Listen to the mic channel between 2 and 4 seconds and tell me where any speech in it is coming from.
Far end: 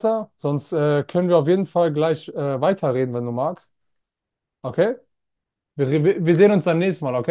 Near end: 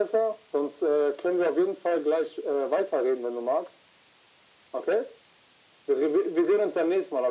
echo only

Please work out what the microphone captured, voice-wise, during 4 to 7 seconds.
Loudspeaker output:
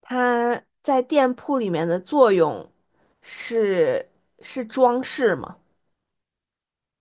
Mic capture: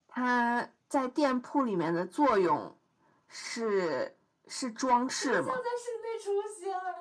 both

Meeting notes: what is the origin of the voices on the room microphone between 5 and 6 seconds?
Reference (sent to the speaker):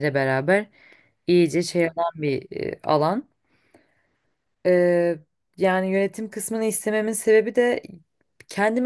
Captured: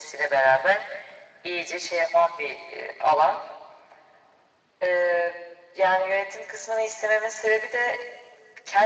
echo only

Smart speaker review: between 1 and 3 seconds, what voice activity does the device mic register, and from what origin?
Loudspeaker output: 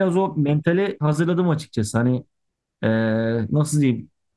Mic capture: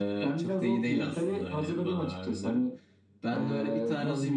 both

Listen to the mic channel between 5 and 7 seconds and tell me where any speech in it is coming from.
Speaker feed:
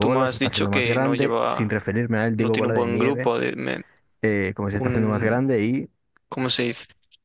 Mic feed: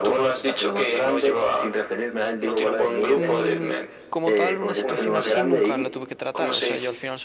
both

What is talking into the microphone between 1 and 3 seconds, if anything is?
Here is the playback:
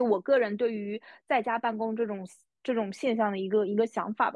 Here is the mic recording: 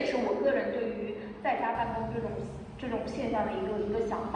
echo only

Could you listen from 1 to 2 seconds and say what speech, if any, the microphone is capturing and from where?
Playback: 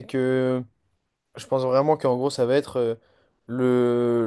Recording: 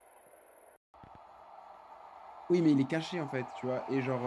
neither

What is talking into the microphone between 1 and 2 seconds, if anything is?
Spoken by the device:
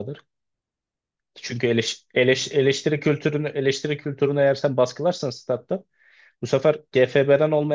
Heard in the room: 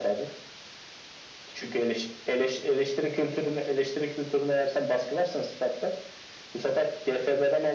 echo only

